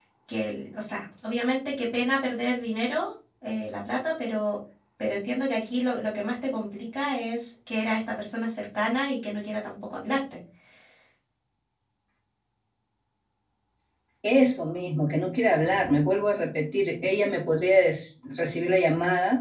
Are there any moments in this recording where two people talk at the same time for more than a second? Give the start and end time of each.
none

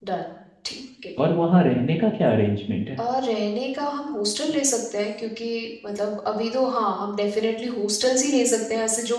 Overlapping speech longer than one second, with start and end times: none

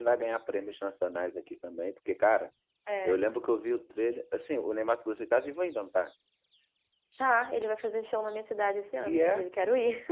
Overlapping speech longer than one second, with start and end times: none

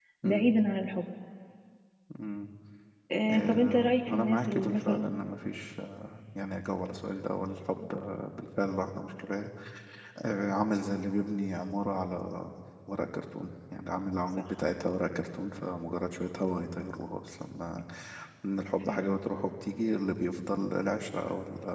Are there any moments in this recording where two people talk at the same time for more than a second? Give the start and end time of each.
3.3-5.1

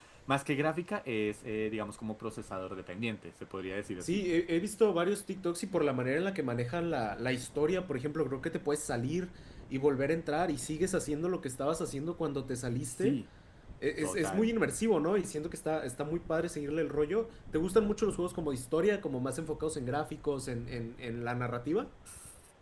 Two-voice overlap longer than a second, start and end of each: none

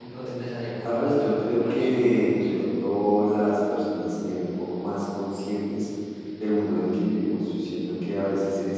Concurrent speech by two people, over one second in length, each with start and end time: 0.8-2.7

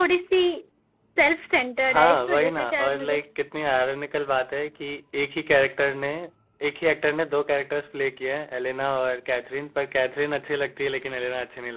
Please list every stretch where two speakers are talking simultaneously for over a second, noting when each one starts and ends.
1.9-3.2

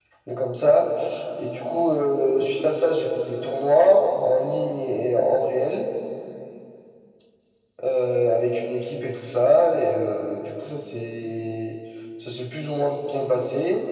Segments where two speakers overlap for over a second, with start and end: none

